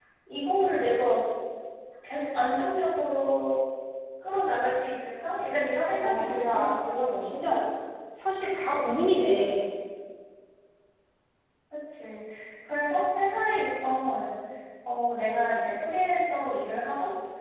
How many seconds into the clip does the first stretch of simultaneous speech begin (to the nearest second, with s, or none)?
6 s